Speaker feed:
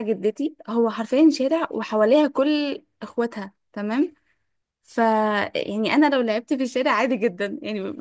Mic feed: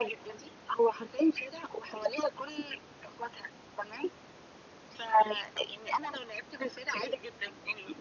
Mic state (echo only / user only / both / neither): echo only